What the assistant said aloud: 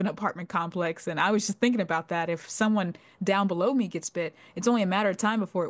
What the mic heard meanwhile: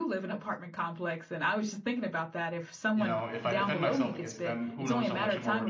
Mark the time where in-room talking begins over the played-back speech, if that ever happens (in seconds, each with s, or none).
2.9 s